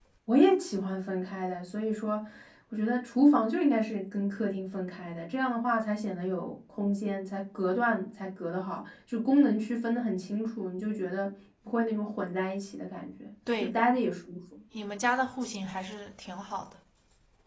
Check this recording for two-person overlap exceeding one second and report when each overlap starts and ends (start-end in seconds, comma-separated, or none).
none